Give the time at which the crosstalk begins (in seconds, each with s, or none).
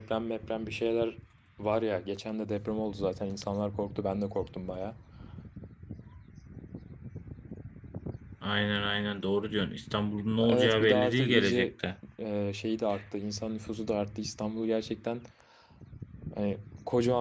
10.5 s